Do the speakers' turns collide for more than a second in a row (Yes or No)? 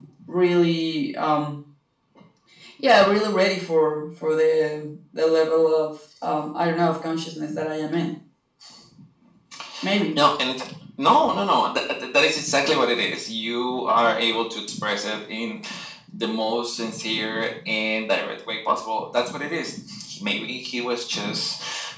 No